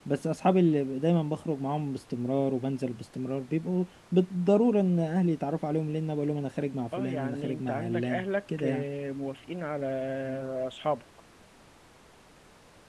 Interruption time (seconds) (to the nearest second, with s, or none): 7 s